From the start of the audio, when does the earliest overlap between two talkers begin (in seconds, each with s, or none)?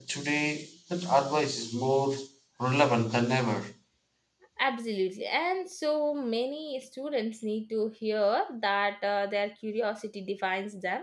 none